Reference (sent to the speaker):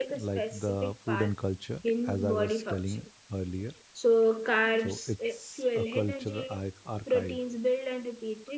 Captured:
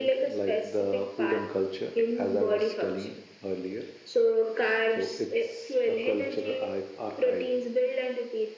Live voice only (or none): none